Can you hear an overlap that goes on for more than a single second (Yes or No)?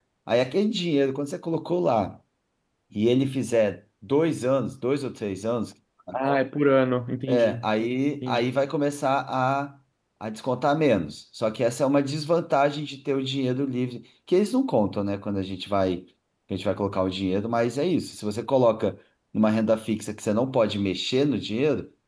No